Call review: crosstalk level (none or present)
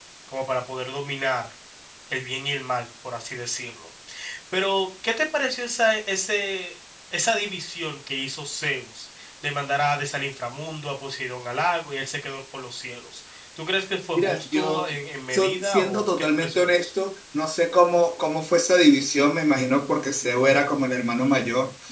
present